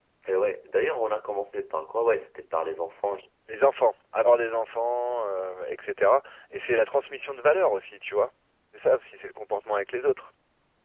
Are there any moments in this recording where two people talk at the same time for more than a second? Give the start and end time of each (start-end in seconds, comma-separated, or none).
none